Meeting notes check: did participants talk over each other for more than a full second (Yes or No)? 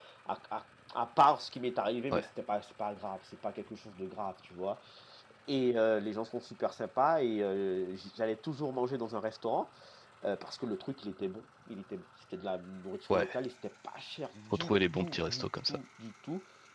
Yes